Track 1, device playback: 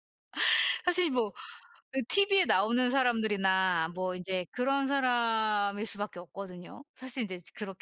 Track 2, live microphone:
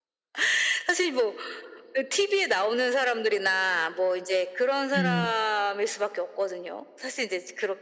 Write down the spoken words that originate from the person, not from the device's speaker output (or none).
음.